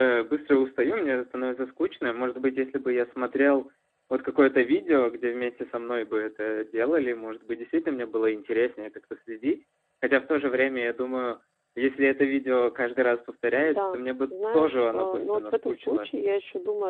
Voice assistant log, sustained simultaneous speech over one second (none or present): present